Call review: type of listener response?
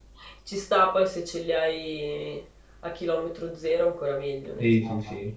taking over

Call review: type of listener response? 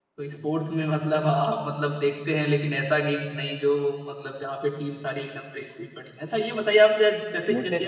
listening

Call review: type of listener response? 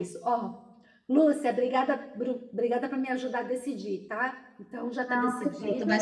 taking over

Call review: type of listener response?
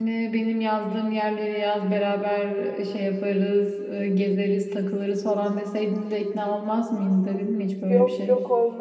taking over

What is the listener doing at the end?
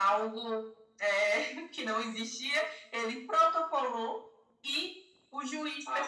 listening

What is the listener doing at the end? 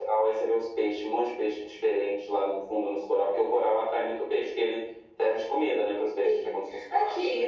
taking over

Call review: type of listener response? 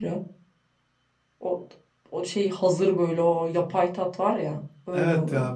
taking over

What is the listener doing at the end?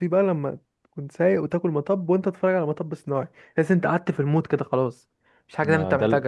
taking over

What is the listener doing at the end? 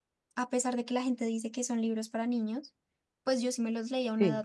listening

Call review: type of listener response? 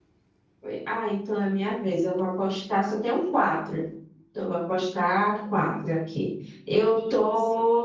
listening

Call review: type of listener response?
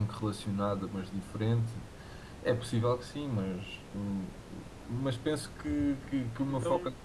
listening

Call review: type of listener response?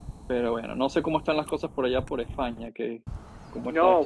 taking over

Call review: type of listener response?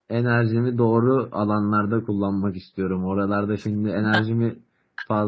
listening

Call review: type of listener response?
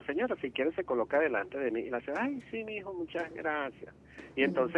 listening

